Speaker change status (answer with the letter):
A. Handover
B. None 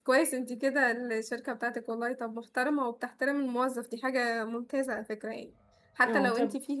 B